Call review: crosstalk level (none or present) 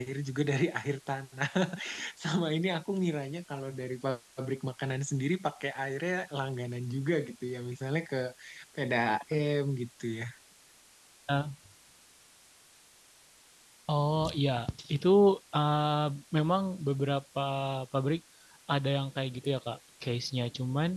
none